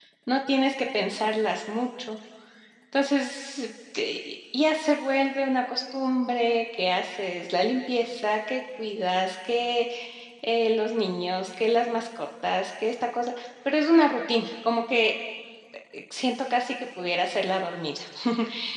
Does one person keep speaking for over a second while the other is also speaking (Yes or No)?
No